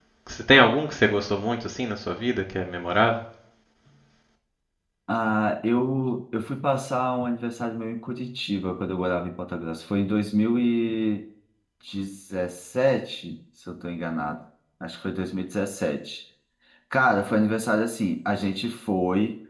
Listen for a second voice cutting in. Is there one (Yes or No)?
No